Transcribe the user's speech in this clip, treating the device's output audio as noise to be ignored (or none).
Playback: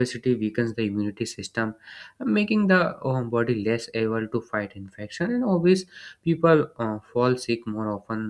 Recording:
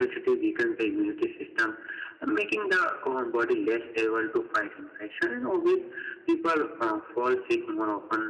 none